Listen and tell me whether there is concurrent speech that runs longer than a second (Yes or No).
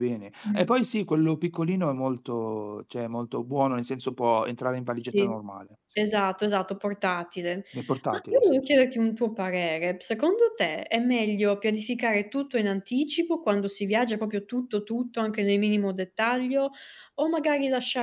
No